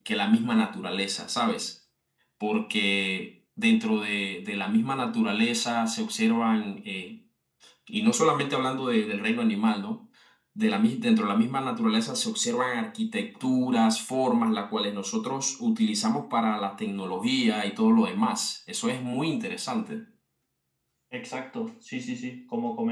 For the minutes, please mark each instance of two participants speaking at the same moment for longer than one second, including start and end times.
none

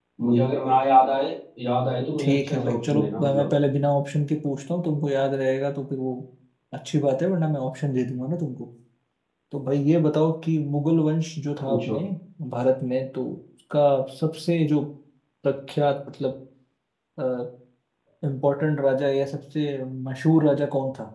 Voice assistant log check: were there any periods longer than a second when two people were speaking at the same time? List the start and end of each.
2.2-3.5

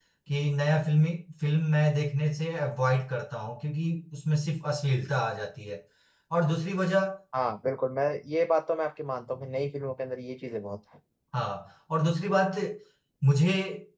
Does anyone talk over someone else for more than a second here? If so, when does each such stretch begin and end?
none

